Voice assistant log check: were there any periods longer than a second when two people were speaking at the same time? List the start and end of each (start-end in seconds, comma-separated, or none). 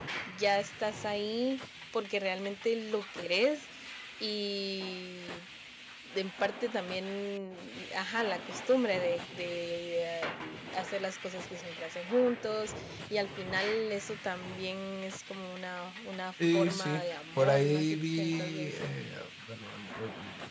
16.5-18.9